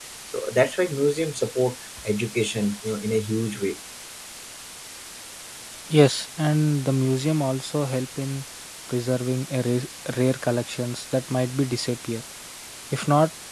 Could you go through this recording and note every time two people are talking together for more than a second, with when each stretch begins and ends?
none

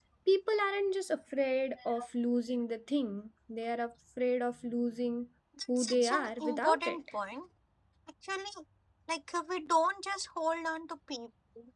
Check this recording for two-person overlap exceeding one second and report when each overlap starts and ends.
5.8-7.0

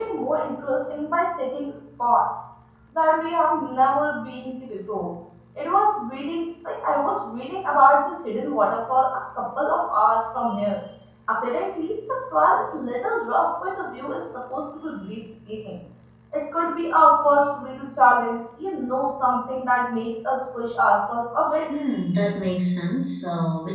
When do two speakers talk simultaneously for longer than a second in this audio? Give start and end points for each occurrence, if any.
none

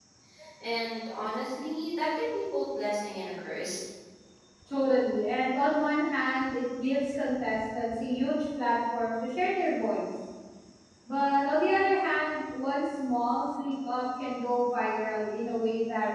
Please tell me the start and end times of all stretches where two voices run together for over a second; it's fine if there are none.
none

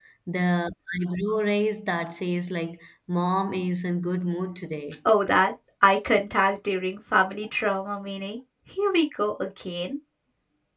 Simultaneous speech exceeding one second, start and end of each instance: none

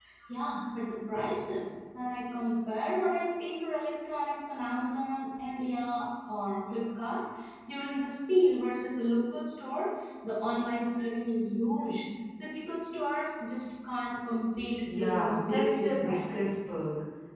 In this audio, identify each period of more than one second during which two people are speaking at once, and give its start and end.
14.9-16.5

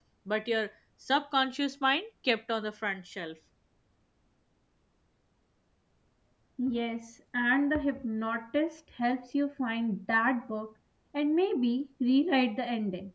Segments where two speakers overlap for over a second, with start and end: none

